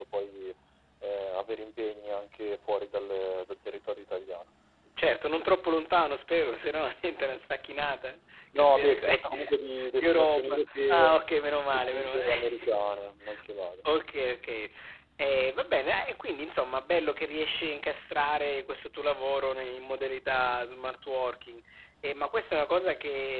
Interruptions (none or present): present